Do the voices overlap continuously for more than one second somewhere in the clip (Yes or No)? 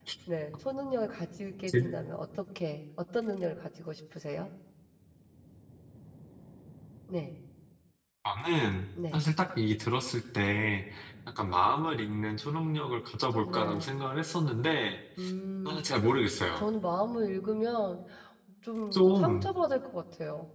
No